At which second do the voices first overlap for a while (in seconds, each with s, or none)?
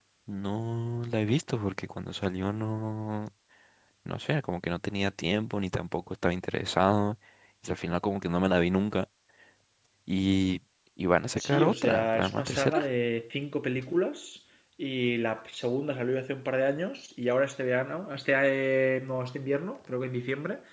11.4 s